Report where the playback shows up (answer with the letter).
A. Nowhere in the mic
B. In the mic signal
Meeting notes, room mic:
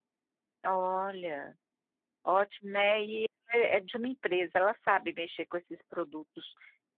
A